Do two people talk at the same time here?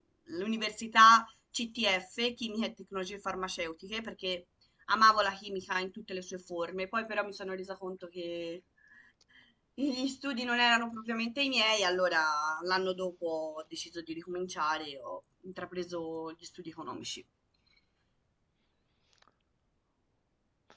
No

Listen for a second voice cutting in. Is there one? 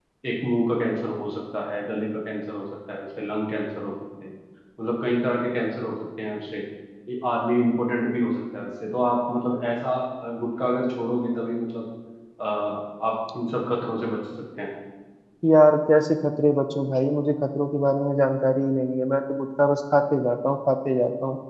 No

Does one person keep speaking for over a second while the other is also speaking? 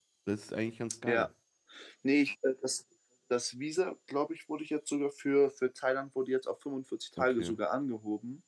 No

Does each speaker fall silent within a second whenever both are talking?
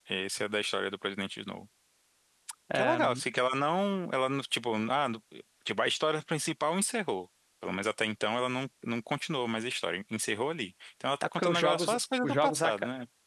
No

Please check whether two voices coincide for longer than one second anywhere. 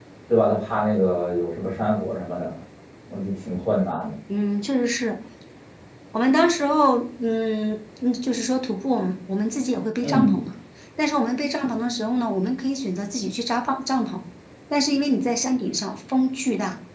No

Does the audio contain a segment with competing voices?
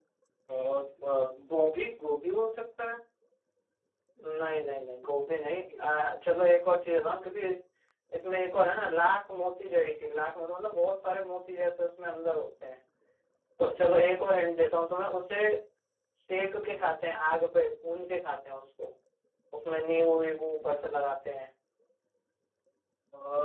No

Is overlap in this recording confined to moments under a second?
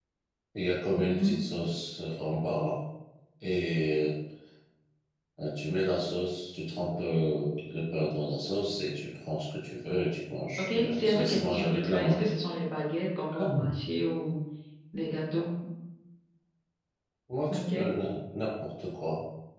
No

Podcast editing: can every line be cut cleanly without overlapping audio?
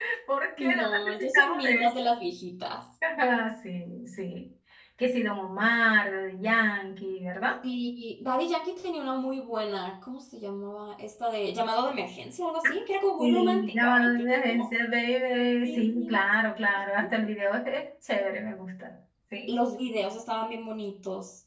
No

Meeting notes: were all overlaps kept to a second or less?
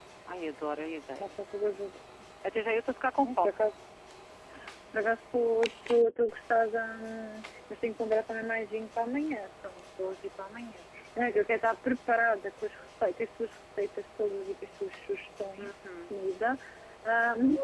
Yes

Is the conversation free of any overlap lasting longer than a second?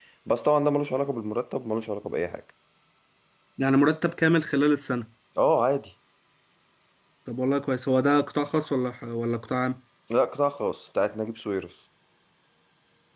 Yes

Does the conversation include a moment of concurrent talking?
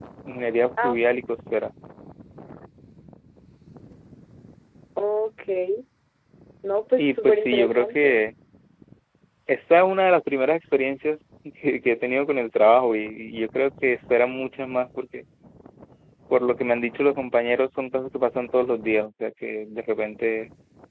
Yes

